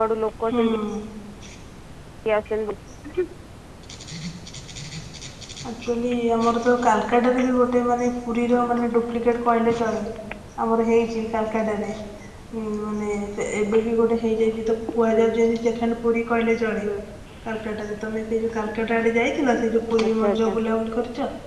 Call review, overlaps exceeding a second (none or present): none